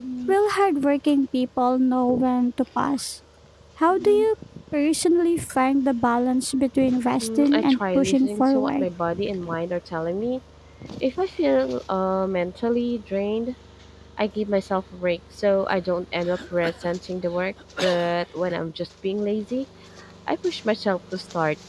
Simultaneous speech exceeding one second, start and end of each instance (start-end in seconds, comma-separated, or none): 7.2-8.9